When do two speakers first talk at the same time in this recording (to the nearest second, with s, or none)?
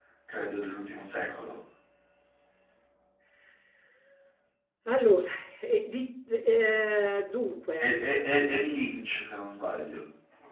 none